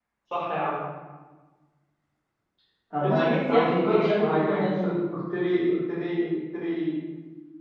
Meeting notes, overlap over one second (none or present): present